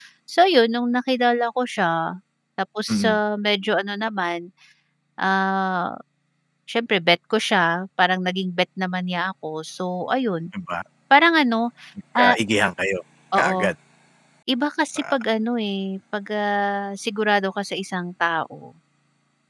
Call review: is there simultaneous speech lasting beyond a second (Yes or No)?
No